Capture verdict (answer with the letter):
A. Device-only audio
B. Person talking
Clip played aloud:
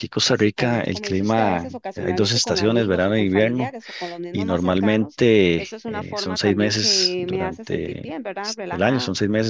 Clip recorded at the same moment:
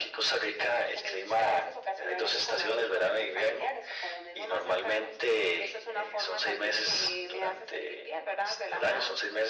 A